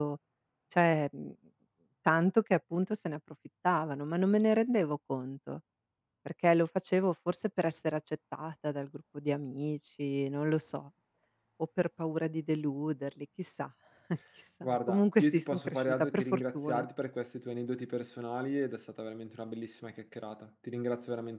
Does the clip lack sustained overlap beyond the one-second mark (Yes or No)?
No